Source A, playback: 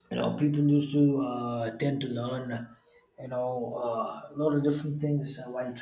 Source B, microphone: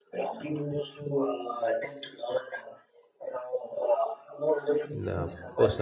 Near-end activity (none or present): present